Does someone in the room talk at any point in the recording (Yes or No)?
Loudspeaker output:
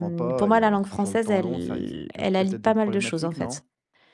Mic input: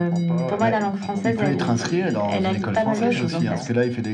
Yes